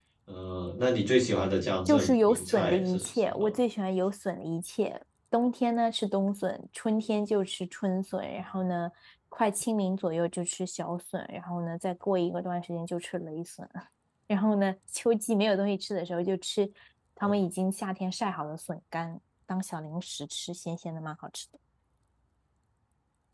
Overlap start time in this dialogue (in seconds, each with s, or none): 1.9 s